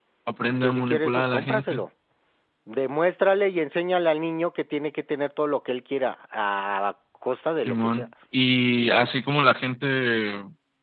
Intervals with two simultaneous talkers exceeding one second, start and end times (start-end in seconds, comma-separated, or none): 0.6-1.8